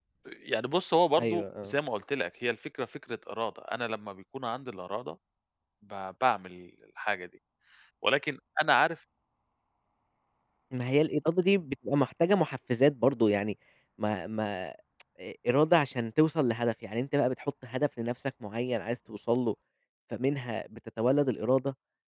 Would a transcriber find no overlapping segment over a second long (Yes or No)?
Yes